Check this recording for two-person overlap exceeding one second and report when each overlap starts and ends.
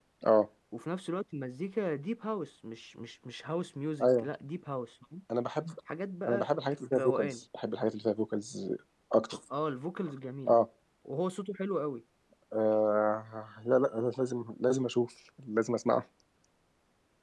none

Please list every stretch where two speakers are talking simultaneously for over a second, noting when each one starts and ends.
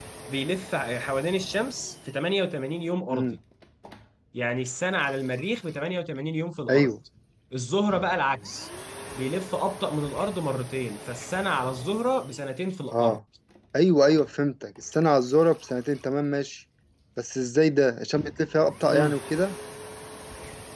none

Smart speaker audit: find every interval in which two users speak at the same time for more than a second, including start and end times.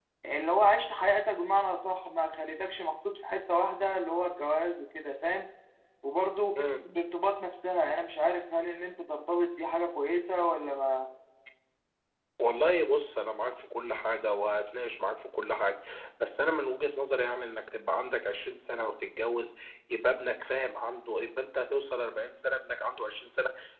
none

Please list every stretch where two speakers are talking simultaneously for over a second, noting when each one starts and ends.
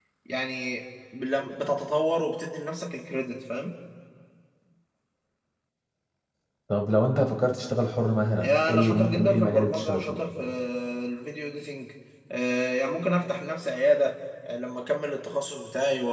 8.4-10.2

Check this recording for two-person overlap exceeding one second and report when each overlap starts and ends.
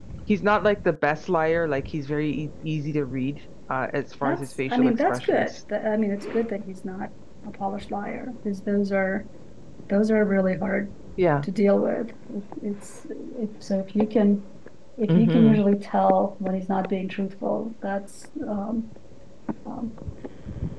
4.2-5.5

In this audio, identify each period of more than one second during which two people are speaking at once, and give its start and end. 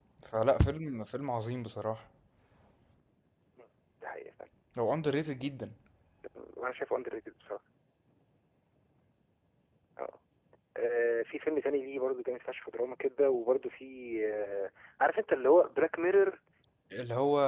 none

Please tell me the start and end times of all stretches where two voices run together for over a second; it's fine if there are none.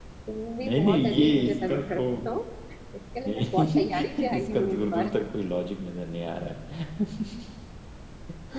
0.6-2.0, 3.3-5.1

